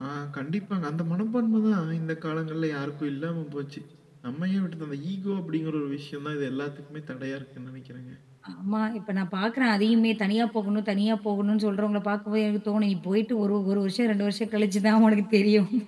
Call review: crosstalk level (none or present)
none